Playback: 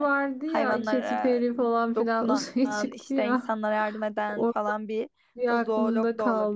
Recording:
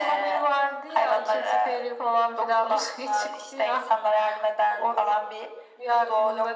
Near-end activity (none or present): none